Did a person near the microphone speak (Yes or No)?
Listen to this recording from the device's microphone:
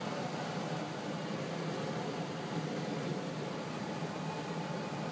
No